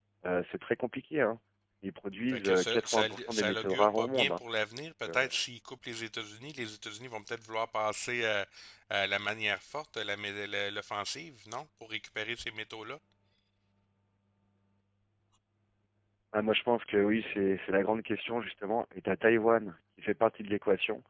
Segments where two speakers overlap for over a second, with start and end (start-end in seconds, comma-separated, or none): 2.3-4.4